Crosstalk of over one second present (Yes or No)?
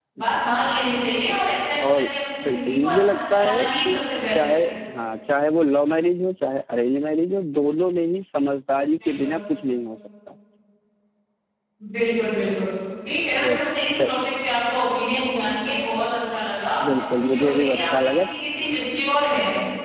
Yes